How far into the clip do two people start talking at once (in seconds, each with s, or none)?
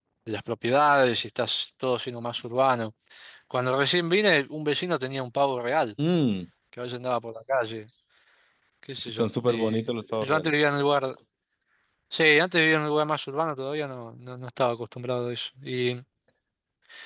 9.1 s